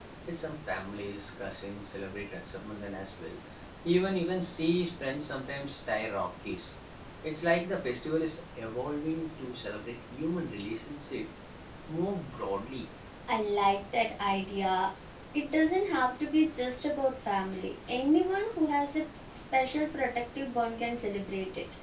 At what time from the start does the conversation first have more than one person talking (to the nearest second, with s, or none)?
none